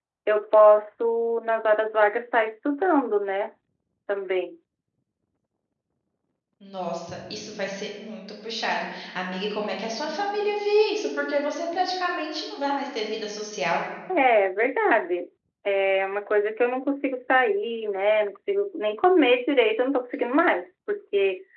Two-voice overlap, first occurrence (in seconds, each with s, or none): none